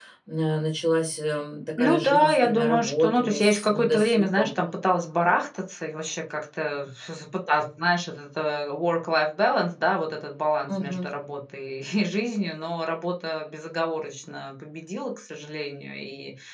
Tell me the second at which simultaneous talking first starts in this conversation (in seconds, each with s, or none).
1.8 s